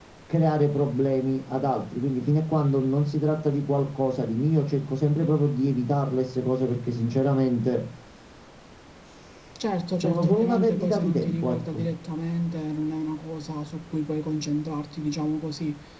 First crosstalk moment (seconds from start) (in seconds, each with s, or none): 10.0 s